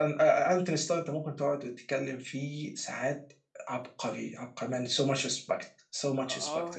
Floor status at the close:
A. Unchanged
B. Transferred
B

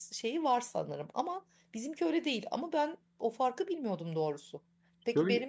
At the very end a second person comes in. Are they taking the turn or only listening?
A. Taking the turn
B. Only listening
B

